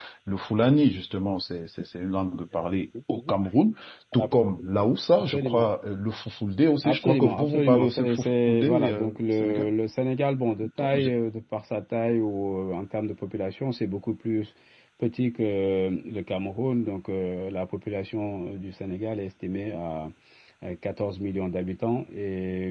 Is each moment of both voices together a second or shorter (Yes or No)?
No